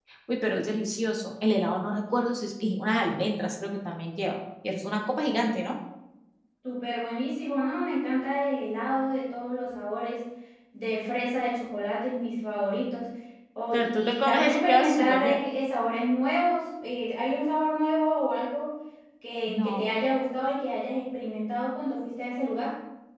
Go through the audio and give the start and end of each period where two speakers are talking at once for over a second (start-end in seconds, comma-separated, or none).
13.7-15.4